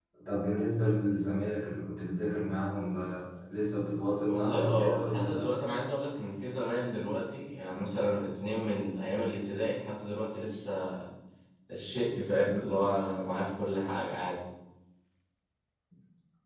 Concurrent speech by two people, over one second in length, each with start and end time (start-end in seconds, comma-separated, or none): 4.3-5.5